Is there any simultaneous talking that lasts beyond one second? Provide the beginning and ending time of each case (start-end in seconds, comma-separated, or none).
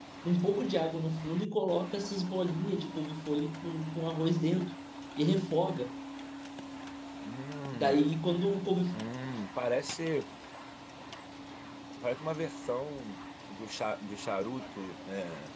none